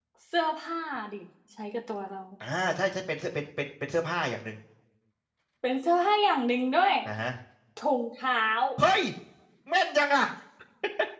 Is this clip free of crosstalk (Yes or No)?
Yes